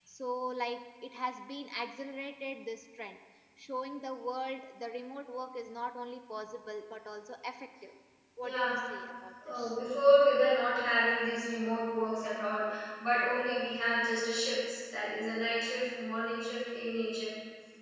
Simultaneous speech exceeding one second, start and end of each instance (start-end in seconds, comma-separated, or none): none